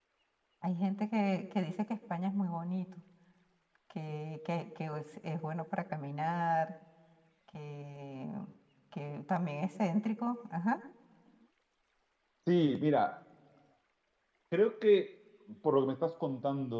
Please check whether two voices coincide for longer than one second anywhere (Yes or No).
No